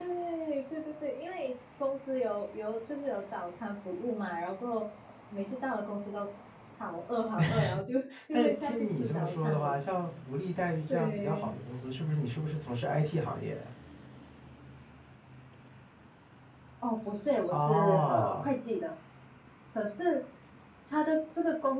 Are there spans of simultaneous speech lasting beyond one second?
Yes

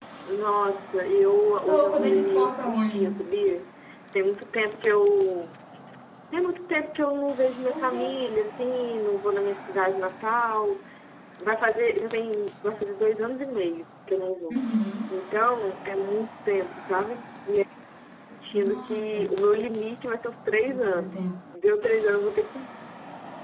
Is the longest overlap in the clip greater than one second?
Yes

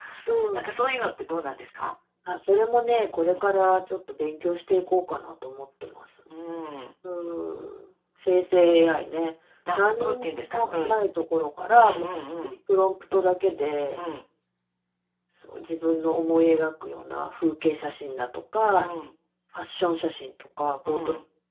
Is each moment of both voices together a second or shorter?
No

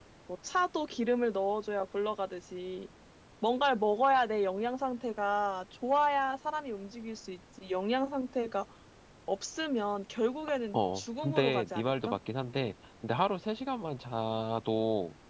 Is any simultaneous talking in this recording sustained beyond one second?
Yes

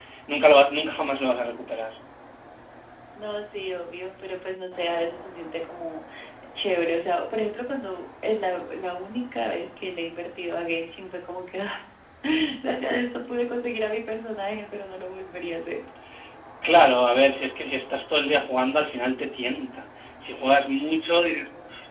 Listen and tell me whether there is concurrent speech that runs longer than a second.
No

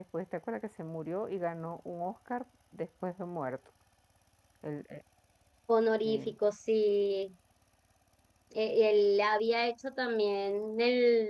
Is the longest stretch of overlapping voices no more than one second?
Yes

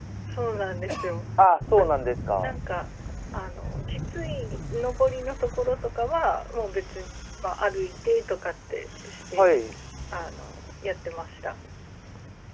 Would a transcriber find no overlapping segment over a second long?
Yes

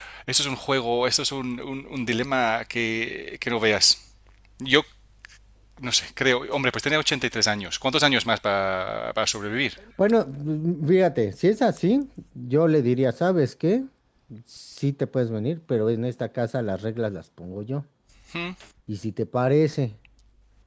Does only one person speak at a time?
Yes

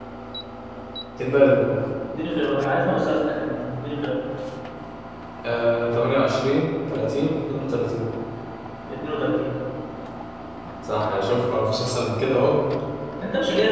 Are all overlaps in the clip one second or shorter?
Yes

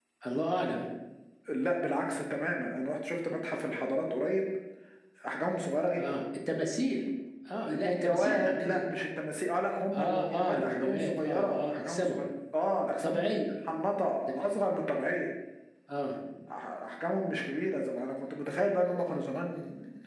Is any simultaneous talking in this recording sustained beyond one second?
Yes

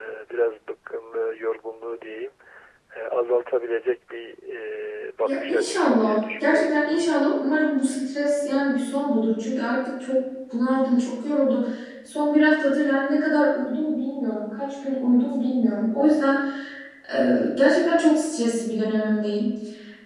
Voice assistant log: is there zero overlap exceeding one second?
No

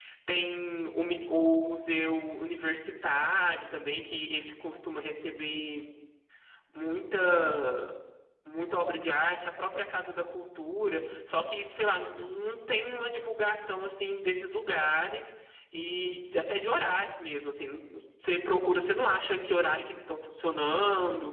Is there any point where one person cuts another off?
No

